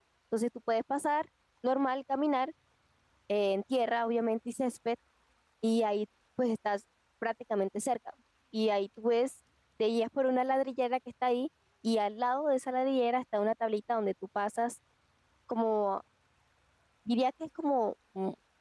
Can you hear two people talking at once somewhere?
No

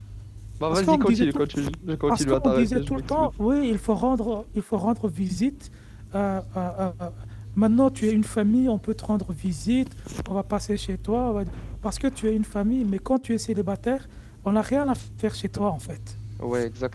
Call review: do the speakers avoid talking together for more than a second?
No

